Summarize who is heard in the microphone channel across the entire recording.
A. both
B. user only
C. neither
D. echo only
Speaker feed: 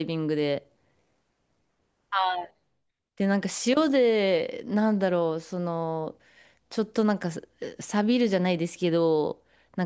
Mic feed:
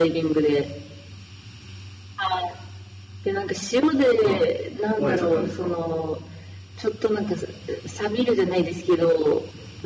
A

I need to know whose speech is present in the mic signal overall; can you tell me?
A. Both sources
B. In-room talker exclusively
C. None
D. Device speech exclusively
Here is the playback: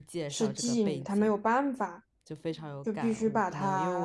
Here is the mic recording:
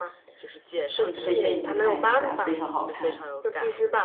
A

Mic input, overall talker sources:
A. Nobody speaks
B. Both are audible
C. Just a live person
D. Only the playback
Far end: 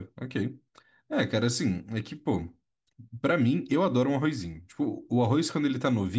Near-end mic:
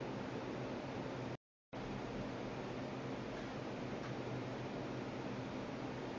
A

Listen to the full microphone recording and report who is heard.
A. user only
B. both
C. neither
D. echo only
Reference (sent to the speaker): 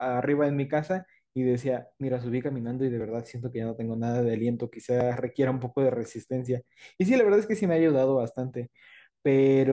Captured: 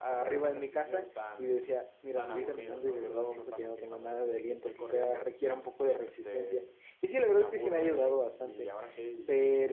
B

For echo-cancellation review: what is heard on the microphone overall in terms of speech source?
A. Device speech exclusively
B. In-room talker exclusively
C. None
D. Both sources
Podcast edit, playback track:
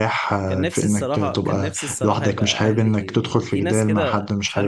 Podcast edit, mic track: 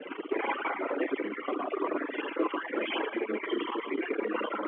A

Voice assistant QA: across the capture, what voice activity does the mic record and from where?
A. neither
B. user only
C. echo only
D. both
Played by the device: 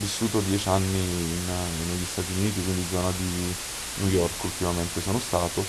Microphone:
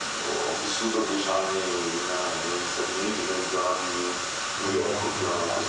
D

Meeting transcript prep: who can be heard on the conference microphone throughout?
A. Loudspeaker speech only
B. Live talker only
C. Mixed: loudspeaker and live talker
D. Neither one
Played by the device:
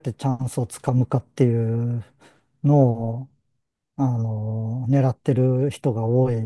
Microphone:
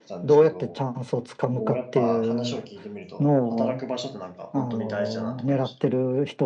C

